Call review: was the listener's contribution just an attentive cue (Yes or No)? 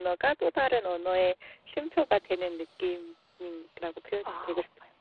No